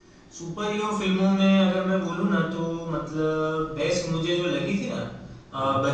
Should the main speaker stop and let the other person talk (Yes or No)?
No